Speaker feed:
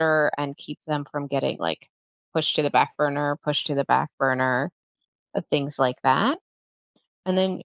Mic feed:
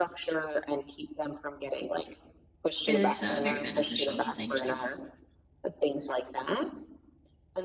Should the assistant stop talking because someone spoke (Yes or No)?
Yes